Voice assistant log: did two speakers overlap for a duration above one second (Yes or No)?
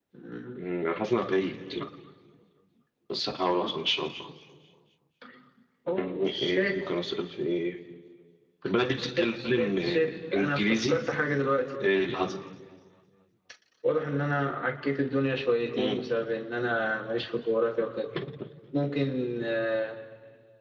Yes